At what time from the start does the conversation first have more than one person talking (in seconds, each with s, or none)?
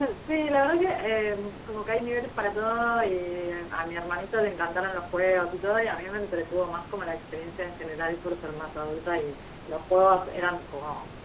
none